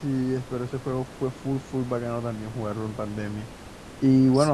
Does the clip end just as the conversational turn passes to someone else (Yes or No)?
No